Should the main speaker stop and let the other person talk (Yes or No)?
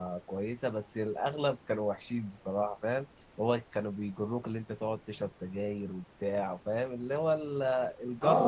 Yes